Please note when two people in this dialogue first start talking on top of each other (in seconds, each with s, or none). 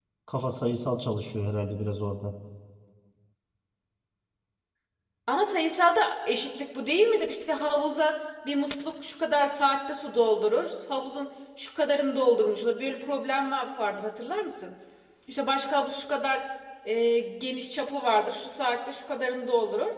none